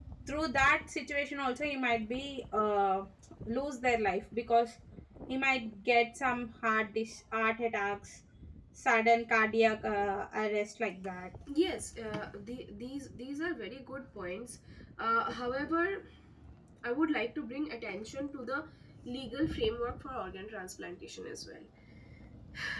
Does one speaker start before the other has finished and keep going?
No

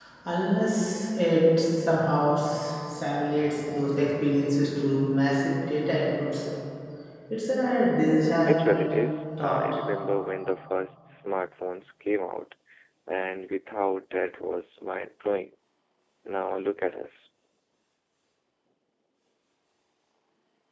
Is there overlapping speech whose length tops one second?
No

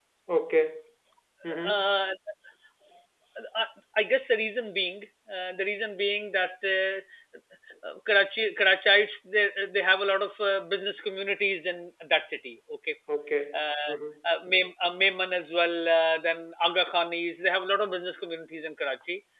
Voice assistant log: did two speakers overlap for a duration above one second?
No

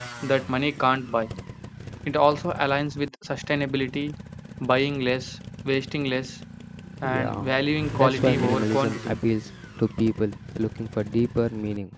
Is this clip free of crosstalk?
No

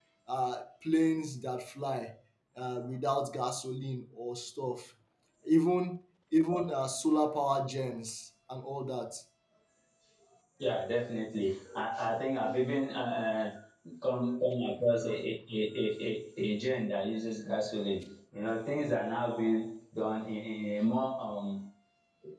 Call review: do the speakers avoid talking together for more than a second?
Yes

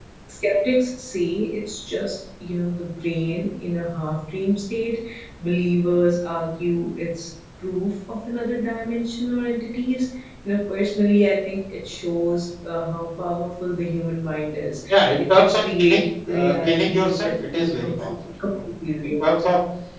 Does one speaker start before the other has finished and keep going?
Yes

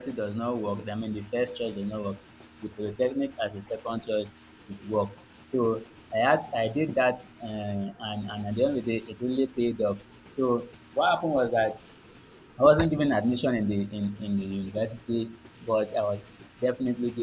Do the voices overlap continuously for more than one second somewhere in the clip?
No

